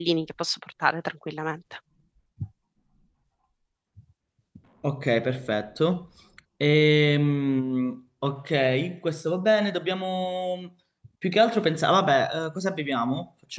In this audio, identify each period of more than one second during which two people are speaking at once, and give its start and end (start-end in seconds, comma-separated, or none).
none